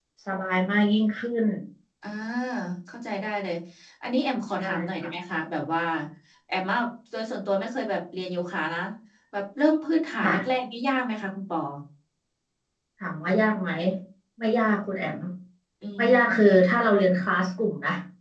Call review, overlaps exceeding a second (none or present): none